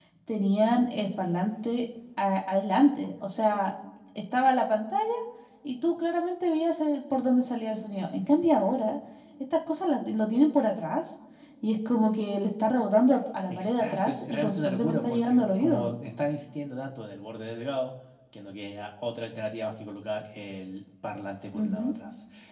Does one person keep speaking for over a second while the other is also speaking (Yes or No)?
Yes